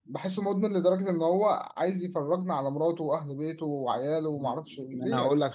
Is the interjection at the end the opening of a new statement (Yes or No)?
Yes